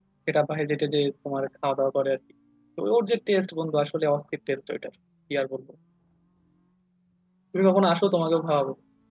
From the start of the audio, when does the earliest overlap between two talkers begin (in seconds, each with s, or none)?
none